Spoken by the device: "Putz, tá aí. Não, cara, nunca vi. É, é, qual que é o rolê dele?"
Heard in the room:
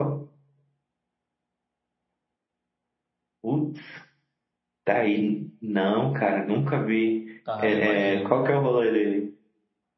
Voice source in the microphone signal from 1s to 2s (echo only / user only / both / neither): neither